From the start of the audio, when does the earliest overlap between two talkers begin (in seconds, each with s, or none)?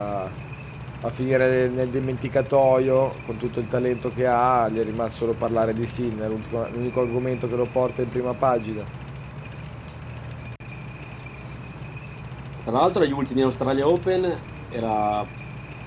none